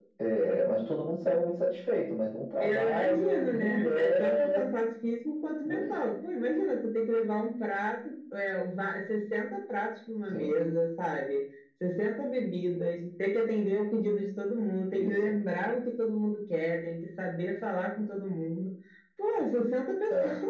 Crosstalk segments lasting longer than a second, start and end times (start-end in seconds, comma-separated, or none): 2.6-4.6